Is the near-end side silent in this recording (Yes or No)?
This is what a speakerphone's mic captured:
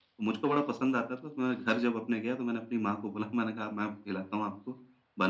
Yes